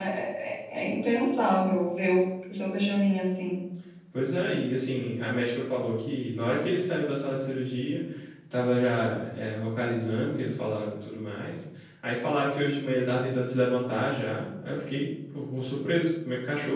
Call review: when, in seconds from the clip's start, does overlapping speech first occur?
none

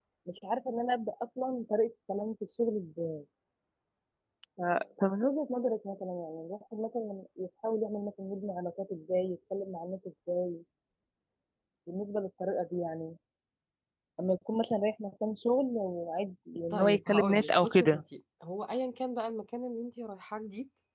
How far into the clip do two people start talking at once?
17 s

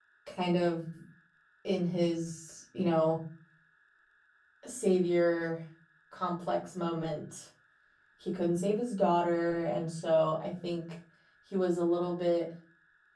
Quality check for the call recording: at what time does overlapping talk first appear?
none

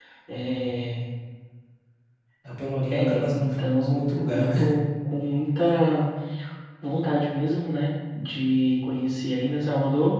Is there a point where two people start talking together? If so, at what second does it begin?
3 s

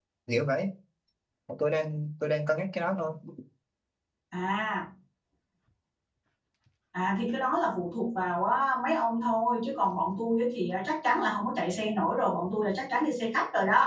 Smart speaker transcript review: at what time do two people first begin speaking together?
none

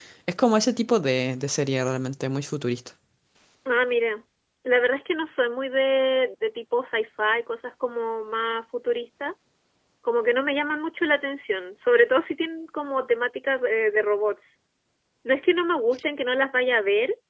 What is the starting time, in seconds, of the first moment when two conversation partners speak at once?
none

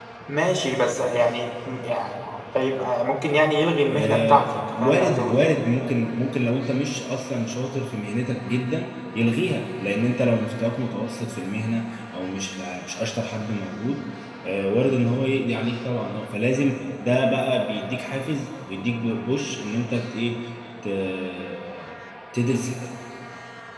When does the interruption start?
4 s

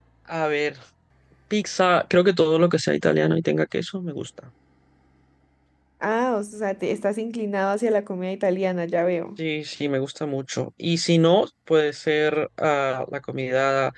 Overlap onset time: none

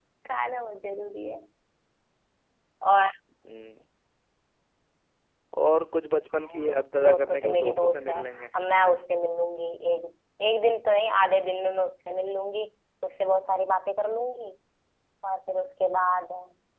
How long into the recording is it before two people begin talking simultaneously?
6 s

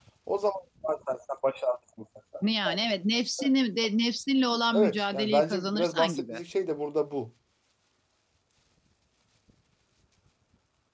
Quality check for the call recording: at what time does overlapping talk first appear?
5 s

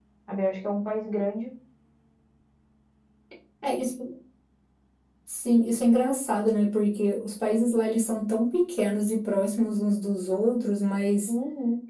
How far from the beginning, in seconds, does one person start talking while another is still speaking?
none

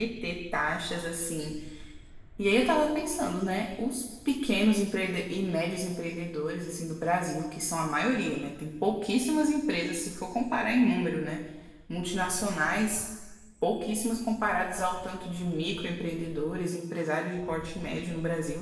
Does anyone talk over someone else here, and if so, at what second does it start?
none

